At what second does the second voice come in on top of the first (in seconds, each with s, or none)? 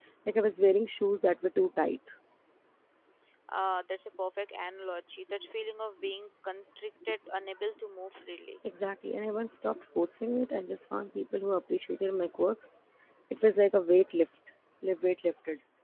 none